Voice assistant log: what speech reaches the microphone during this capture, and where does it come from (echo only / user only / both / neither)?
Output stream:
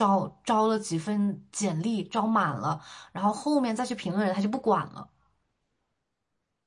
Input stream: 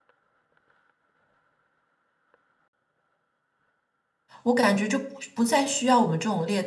user only